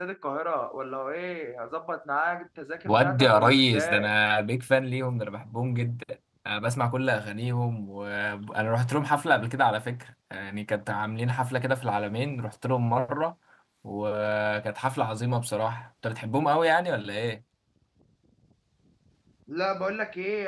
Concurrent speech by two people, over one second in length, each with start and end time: 2.9-4.1

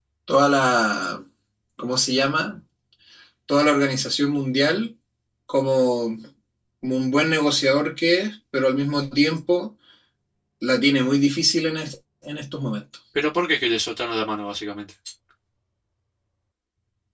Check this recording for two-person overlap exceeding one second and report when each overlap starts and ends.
none

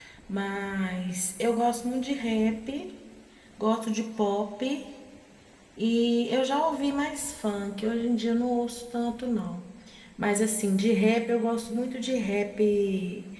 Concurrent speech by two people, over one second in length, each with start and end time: none

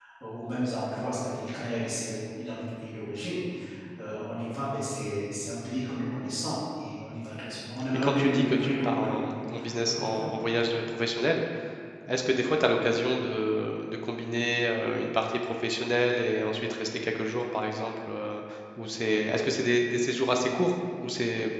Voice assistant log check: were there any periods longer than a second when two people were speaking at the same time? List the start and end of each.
7.9-9.3

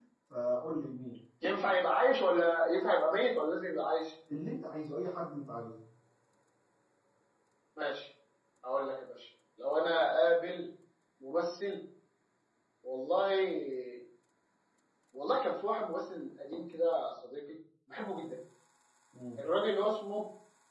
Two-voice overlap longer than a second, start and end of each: none

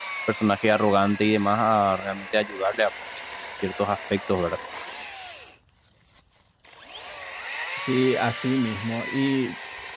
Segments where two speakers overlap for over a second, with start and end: none

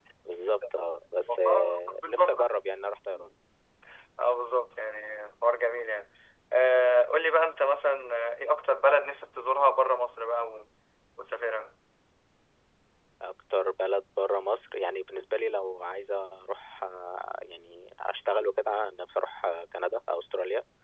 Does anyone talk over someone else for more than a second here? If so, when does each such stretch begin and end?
1.3-2.5

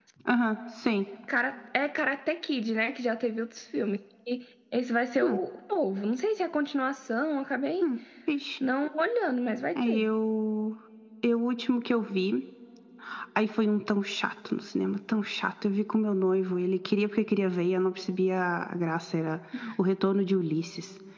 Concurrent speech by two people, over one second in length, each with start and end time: none

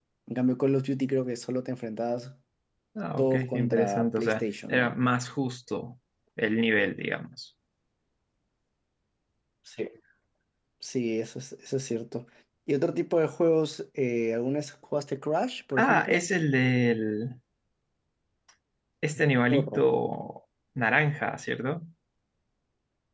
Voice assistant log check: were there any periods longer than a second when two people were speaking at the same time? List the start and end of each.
3.2-4.9

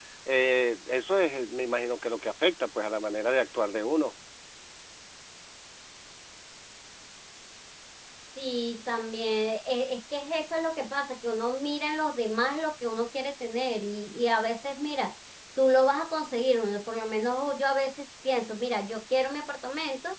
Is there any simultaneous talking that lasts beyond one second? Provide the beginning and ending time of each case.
none

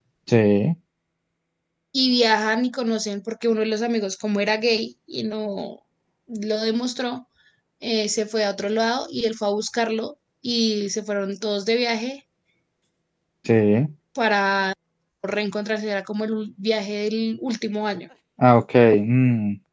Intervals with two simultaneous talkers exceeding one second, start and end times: none

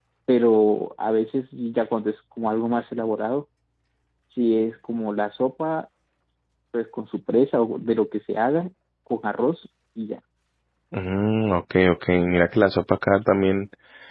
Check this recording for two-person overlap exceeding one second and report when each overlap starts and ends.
none

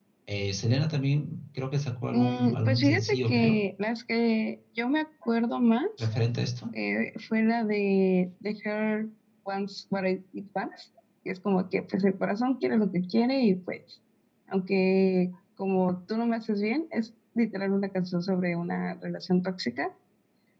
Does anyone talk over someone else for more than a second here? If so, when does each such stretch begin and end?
2.1-3.5

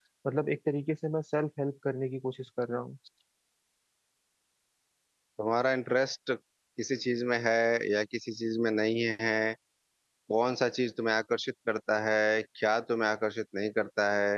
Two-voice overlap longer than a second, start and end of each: none

